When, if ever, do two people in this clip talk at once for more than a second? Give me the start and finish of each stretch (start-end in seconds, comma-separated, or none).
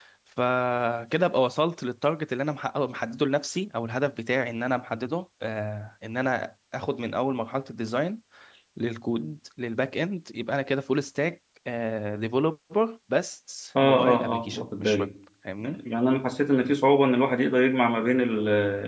13.8-15.1